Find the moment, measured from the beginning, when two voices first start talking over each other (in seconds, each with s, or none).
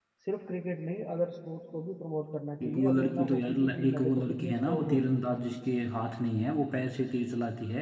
2.6 s